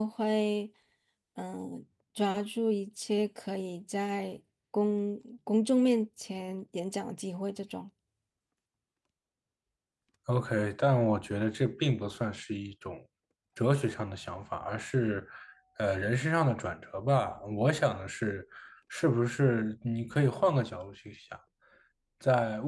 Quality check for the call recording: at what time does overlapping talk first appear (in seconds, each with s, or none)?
none